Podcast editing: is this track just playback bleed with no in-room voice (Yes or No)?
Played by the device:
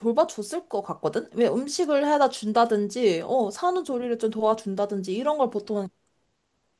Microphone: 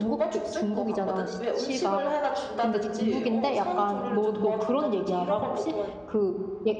No